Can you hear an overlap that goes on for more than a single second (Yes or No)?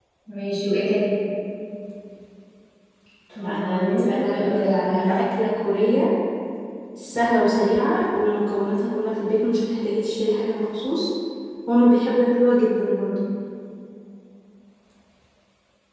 Yes